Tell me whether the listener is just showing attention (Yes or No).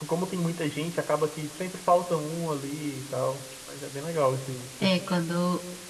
No